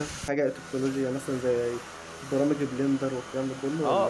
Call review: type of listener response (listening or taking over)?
taking over